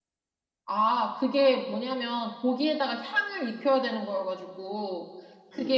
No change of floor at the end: Yes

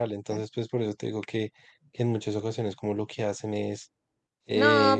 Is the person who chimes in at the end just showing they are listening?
No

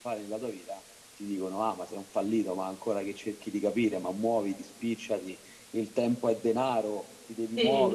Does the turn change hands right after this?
No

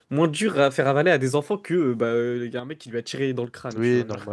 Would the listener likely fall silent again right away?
No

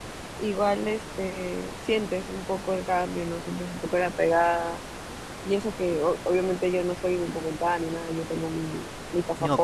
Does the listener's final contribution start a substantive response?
No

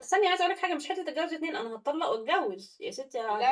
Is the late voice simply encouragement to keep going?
No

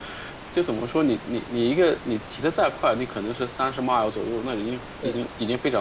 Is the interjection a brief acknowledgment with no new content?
Yes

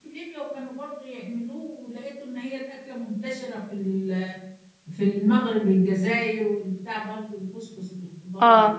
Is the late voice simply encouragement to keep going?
Yes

